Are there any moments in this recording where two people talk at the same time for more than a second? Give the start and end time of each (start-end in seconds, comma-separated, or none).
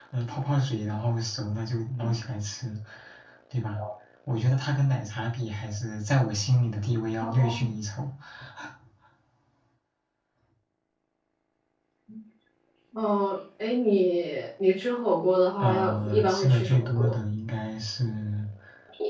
15.6-17.2